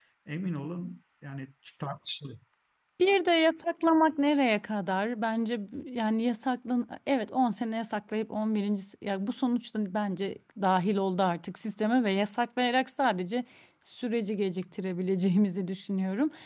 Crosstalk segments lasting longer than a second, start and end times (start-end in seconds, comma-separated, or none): none